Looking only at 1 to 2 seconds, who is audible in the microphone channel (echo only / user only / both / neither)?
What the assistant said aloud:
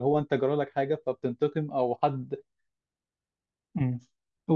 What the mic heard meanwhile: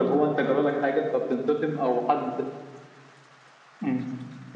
echo only